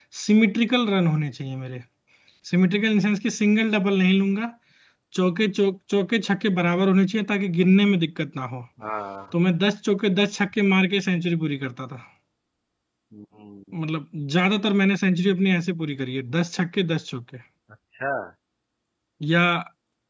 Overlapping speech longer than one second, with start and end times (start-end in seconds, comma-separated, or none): none